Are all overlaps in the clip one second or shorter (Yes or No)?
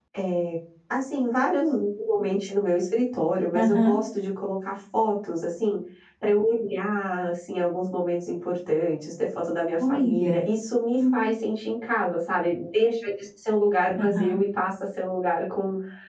Yes